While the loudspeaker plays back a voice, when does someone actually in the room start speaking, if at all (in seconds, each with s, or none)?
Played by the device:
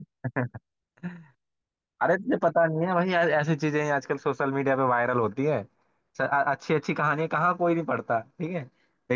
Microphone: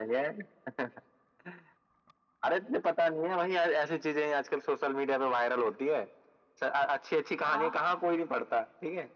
7.4 s